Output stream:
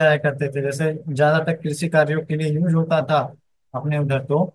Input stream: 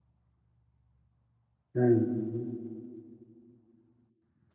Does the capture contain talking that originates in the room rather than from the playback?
Yes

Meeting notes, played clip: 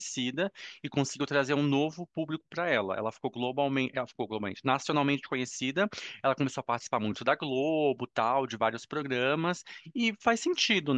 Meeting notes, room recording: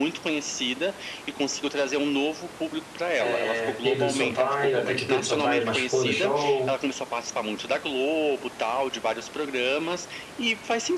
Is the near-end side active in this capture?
Yes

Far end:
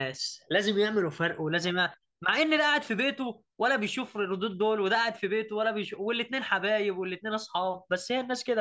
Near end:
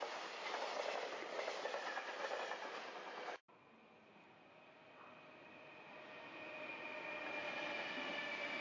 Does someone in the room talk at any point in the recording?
No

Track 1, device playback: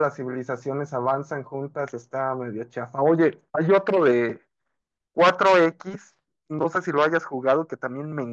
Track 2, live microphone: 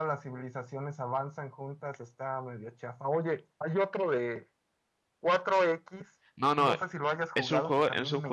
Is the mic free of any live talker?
No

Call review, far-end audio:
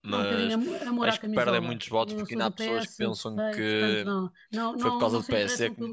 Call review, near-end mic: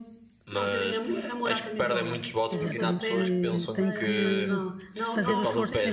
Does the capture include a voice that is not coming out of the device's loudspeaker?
Yes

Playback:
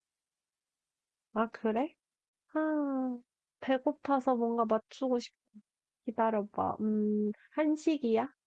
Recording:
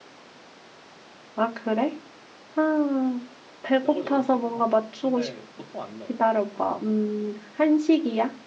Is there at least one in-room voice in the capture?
Yes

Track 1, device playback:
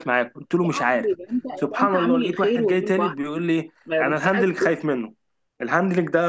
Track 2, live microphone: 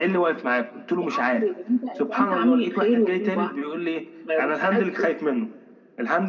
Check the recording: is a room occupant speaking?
No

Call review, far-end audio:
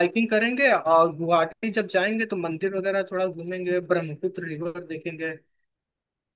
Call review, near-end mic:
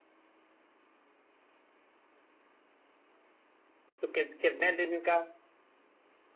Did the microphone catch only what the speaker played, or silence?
No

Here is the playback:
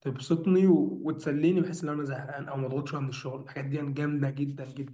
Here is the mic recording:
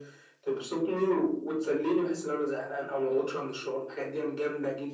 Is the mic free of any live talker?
Yes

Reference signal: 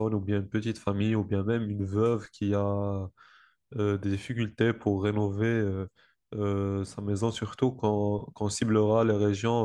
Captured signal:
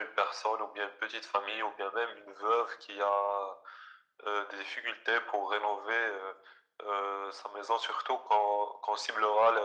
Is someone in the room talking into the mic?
No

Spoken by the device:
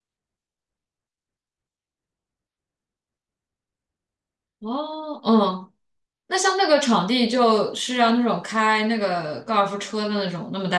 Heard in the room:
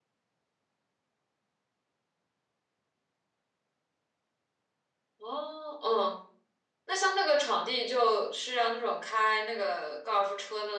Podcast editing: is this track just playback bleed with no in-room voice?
Yes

